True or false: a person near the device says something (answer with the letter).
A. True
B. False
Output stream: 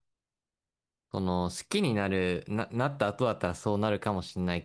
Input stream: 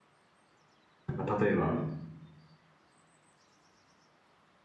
A